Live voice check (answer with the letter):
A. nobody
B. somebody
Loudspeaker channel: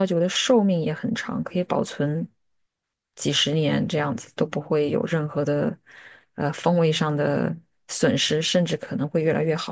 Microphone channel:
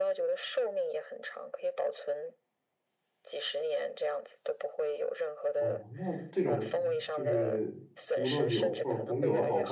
B